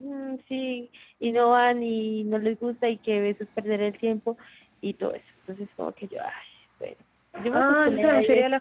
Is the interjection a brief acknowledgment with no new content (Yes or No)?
No